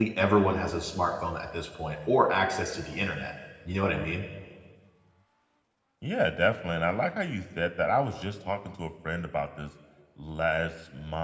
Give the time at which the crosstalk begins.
none

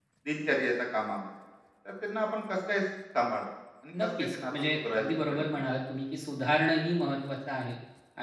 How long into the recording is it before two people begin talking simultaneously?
3.9 s

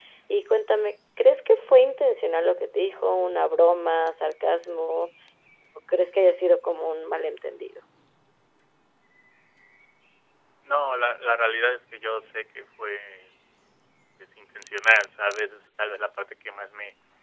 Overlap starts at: none

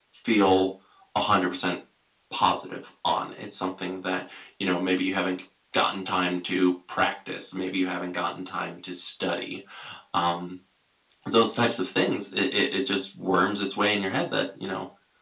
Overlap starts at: none

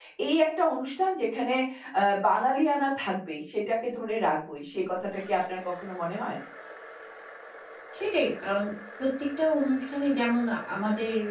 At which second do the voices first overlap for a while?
none

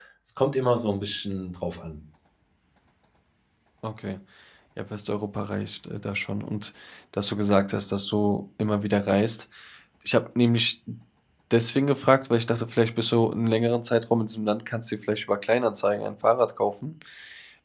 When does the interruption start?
none

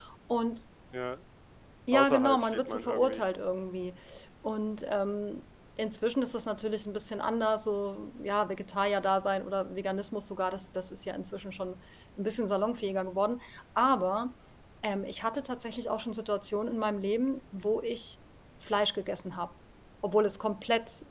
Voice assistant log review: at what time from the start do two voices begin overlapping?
1.9 s

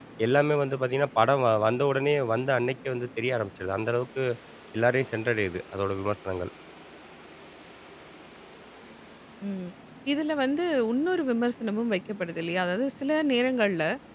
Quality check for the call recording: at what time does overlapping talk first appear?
none

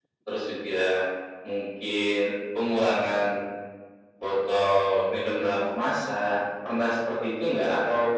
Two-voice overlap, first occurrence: none

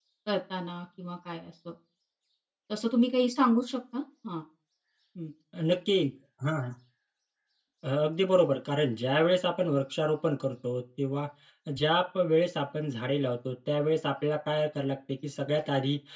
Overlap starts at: none

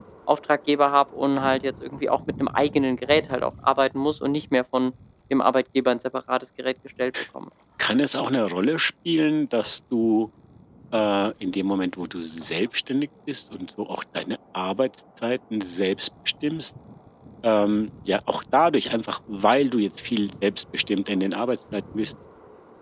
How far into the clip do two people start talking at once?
none

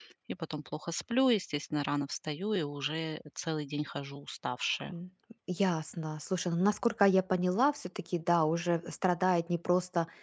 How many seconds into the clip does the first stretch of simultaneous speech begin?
none

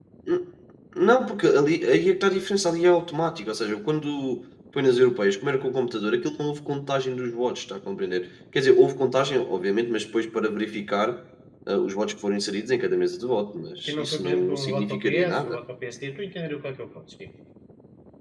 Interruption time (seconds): 13.9 s

